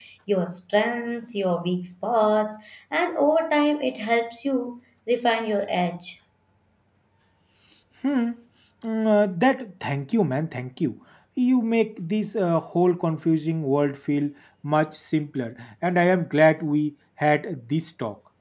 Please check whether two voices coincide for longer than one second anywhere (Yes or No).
No